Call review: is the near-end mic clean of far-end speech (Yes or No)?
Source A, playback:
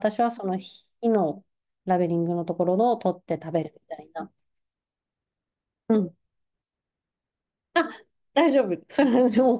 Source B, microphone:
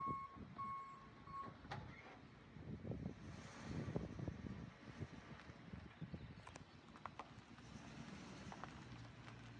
Yes